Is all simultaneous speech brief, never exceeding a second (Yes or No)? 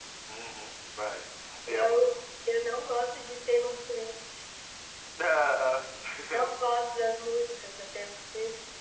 Yes